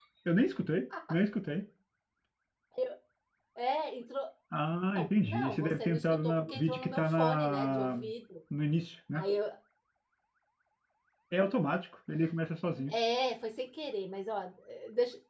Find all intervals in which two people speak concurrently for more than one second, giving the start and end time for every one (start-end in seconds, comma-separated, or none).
5.0-7.9